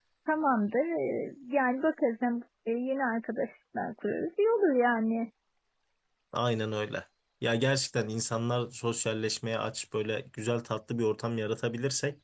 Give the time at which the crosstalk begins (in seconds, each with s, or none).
none